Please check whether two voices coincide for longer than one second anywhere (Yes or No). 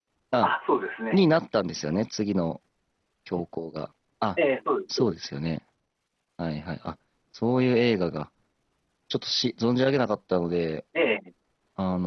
No